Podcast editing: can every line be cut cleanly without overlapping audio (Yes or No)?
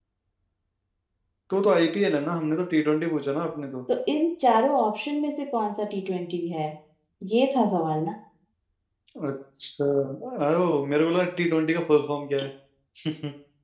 Yes